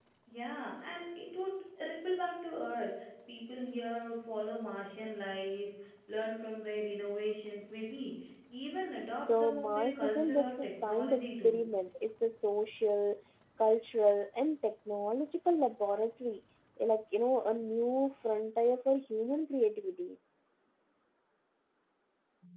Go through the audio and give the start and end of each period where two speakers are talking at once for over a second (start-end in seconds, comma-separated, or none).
9.2-11.6